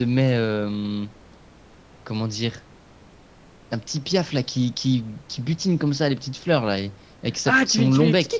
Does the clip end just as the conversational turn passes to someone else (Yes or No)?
Yes